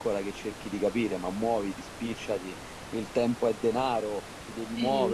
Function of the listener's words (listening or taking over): listening